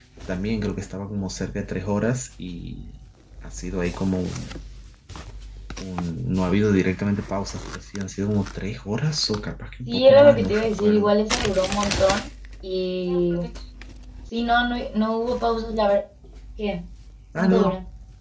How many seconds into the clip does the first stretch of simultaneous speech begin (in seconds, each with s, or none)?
9.9 s